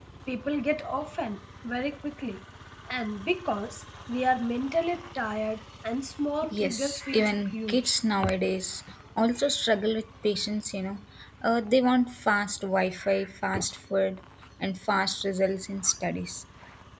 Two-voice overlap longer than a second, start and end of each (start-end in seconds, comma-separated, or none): 6.5-7.9